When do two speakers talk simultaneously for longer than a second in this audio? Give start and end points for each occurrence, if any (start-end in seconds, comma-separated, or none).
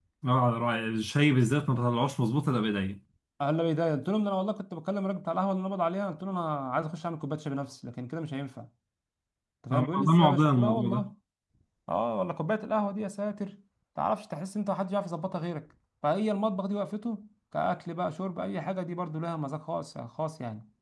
9.7-11.1